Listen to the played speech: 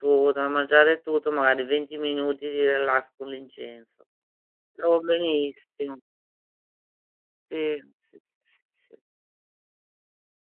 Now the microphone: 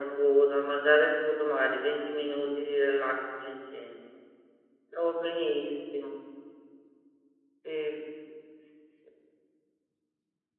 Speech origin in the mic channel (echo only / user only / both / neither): echo only